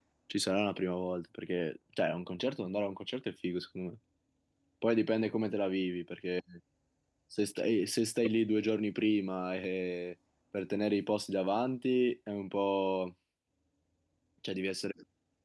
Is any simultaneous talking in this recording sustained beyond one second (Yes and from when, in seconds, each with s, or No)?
No